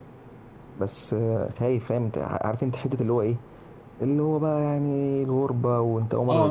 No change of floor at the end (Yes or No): No